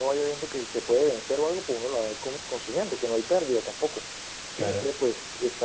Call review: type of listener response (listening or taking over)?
listening